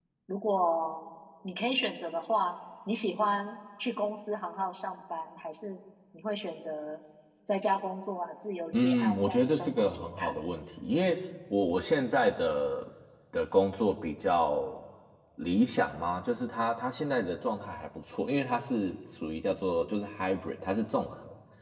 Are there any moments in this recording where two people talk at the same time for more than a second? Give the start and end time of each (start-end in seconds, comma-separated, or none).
8.8-10.3